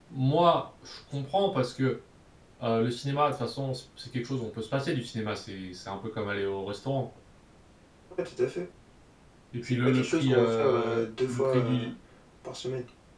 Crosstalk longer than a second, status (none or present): present